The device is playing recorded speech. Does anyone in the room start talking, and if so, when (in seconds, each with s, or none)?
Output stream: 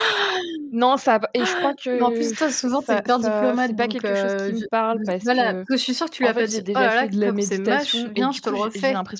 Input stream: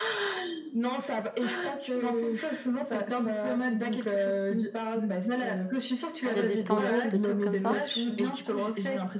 6.3 s